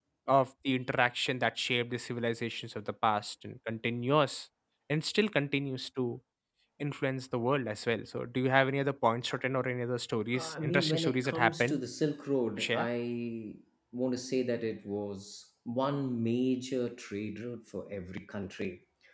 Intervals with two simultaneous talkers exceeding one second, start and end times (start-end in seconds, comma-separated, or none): 10.3-11.8